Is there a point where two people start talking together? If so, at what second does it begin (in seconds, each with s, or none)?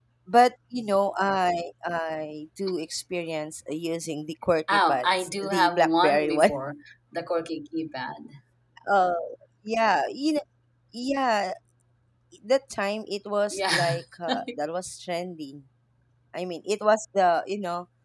4.7 s